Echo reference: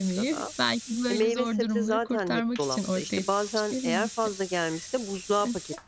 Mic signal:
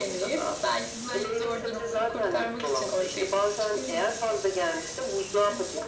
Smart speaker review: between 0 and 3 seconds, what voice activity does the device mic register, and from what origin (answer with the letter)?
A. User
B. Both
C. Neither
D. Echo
D